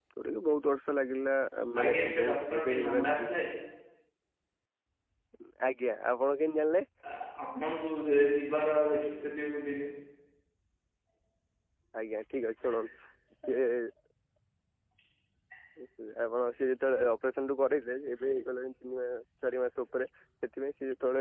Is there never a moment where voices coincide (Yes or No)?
No